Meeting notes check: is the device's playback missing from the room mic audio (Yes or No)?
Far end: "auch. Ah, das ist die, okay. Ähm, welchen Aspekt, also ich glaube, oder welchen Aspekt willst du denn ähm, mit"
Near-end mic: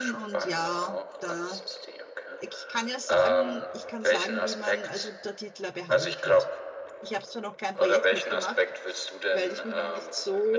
No